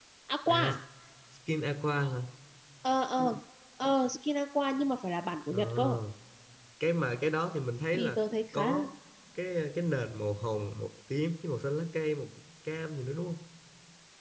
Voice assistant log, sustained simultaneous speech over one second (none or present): none